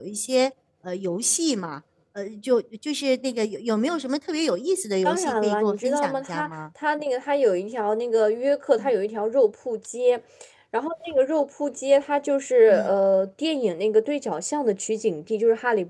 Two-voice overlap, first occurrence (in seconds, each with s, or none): 5.0 s